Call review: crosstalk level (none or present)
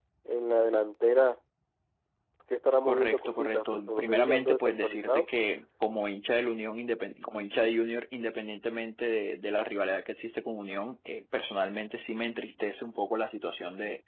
present